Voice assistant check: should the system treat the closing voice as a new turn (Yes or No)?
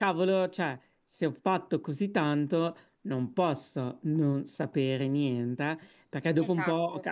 No